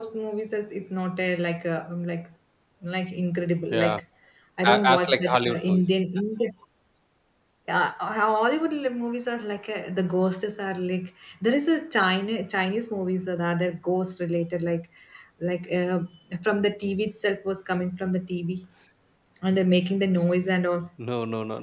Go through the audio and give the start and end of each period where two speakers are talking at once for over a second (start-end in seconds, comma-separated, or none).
4.6-5.8